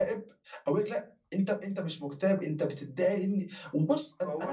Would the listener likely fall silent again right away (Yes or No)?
Yes